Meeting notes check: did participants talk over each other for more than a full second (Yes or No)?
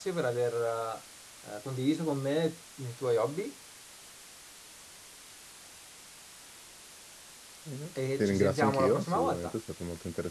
Yes